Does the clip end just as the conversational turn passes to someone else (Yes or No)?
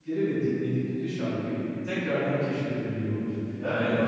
No